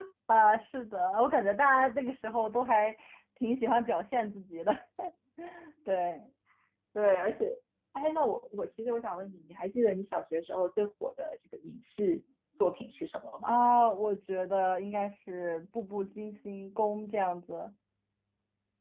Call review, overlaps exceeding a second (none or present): none